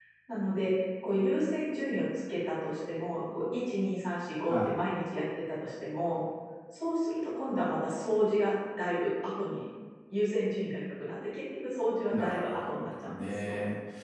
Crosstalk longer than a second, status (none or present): present